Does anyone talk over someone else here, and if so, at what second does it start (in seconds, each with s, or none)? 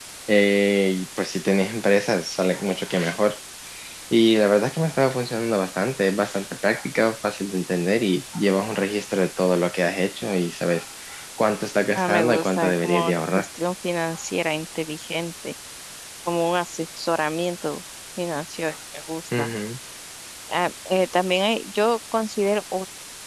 11.9 s